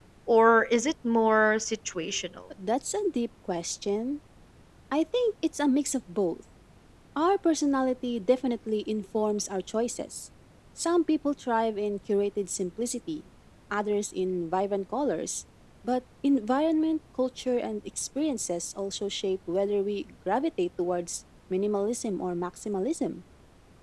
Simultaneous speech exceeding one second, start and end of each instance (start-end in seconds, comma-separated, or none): none